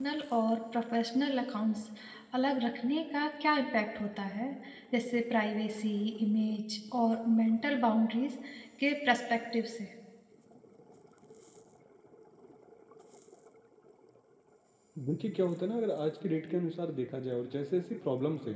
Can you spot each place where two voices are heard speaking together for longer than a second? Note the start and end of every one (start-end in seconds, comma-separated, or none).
none